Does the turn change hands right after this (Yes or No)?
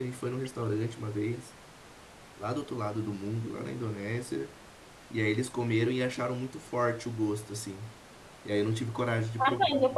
Yes